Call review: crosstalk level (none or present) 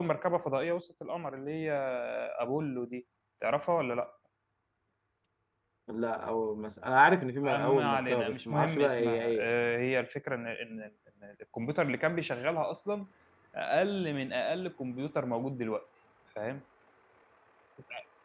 present